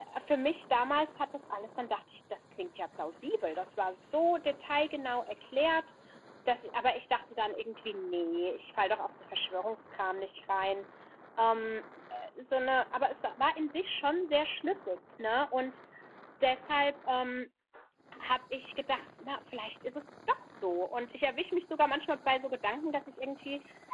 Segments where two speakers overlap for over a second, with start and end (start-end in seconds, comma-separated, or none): none